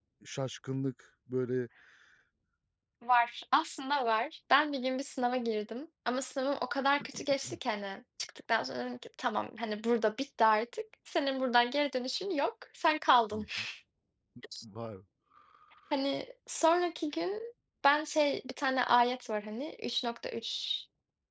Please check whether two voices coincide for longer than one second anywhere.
No

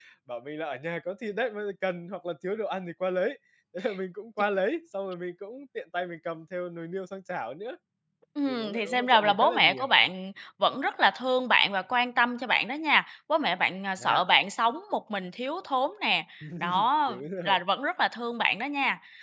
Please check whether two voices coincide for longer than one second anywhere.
Yes, from 8.5 s

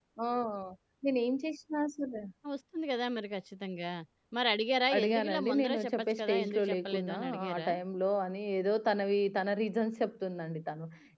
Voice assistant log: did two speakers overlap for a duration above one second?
Yes, from 5.0 s

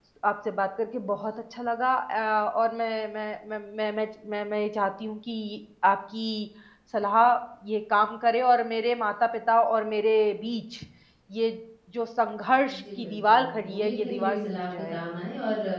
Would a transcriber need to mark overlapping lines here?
Yes, from 12.7 s

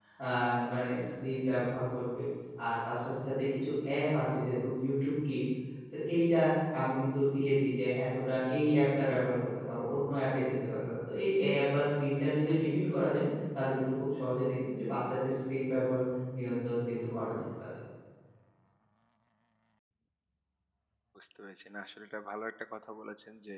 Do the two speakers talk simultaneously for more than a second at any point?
No

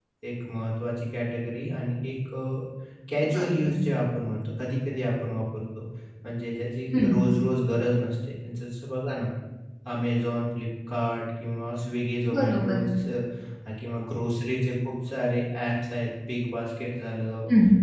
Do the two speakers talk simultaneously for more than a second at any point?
No

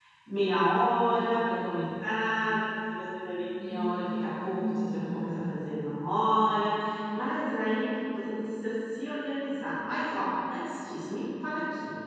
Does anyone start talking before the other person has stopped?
Yes, from 3.5 s

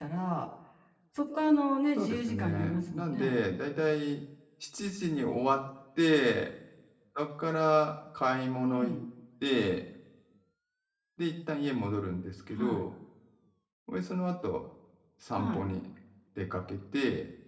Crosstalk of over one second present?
Yes, from 2.0 s

